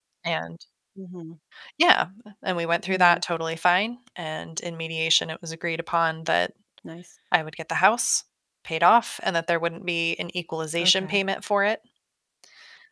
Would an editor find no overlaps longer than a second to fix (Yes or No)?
Yes